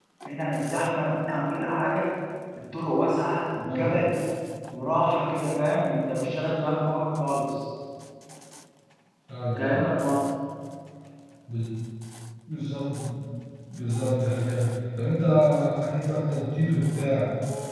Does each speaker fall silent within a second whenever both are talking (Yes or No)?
Yes